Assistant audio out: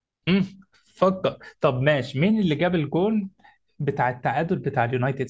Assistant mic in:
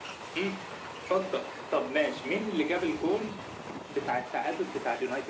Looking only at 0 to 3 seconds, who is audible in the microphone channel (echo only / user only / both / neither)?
echo only